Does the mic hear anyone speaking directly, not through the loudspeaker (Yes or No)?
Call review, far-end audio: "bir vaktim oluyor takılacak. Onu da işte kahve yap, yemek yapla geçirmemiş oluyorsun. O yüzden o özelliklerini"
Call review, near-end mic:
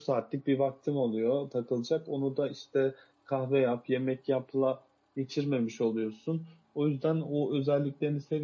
No